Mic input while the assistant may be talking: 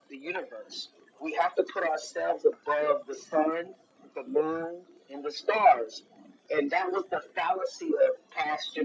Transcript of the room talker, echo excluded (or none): none